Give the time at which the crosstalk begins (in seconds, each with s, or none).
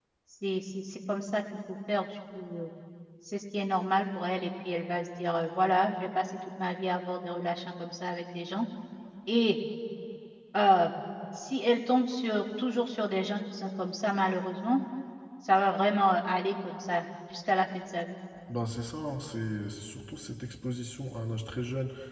none